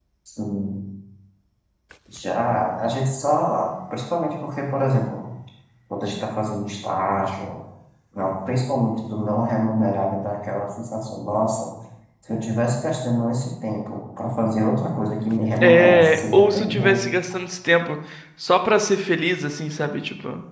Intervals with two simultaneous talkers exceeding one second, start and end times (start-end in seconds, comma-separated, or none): 15.6-17.0